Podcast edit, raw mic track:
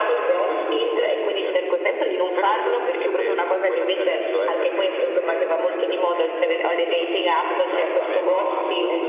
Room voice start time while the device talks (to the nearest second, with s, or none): 7 s